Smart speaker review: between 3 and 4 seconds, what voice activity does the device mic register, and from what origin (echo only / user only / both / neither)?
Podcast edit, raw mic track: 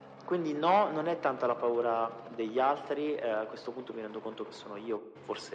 echo only